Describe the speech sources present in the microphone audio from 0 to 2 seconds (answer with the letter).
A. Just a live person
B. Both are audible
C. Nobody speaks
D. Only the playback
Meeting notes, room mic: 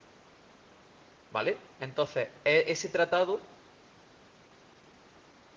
A